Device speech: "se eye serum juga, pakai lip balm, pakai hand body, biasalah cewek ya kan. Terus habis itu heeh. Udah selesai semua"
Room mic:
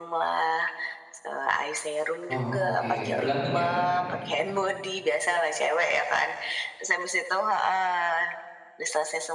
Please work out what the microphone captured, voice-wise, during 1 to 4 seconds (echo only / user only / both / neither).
both